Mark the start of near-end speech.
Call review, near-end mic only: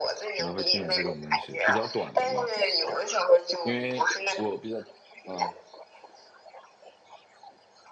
0.4 s

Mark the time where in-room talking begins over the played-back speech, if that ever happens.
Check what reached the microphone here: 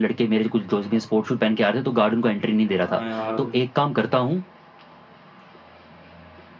2.7 s

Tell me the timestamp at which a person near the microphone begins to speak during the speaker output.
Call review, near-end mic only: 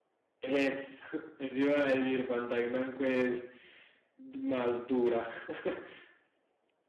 none

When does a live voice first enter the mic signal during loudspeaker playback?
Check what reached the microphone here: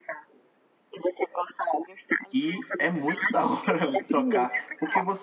2.3 s

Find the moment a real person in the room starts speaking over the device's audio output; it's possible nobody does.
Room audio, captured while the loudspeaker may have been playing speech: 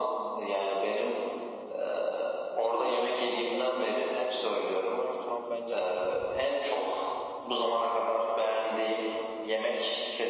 2.6 s

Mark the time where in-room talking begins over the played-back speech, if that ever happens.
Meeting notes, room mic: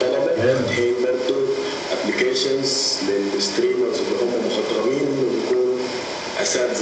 0.3 s

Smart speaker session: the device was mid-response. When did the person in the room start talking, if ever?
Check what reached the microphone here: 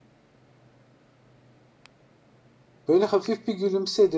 2.9 s

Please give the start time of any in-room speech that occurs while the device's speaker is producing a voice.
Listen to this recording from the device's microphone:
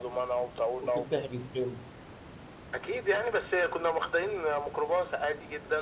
0.8 s

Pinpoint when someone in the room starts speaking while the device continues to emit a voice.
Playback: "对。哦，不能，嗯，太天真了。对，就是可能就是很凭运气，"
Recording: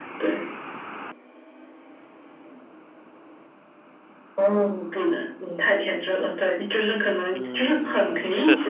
7.3 s

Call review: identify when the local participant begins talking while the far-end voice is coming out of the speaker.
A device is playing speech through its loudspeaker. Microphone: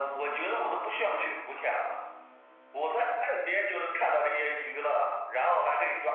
none

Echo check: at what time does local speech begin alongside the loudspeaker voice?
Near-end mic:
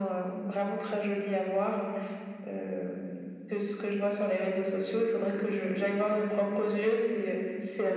none

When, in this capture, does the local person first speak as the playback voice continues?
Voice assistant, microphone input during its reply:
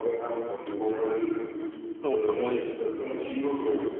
2.0 s

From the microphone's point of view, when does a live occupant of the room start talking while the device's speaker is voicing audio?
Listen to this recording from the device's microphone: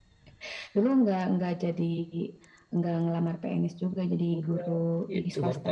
4.4 s

